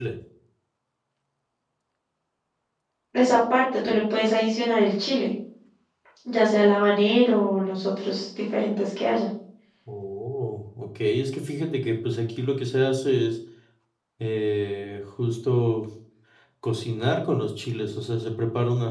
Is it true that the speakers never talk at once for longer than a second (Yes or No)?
Yes